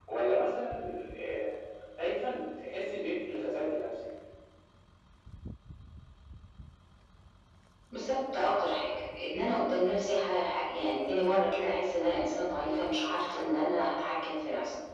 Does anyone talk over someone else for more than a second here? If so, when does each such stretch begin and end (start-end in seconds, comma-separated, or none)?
none